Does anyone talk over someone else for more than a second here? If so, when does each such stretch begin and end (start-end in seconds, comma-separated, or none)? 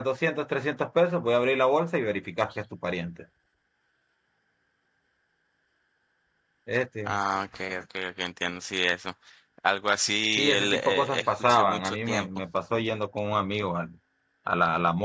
10.4-12.3